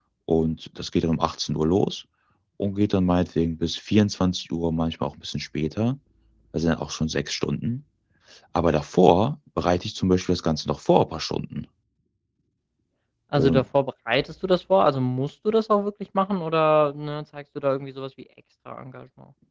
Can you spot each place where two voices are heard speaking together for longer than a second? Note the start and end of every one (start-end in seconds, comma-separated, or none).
none